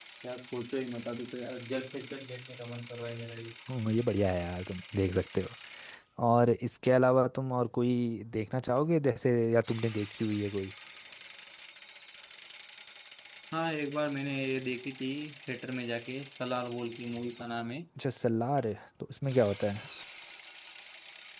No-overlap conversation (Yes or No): Yes